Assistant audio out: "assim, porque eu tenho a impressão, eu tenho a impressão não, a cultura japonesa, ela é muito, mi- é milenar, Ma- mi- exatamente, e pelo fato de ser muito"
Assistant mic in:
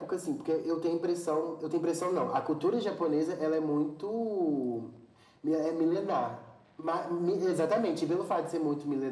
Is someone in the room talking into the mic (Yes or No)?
No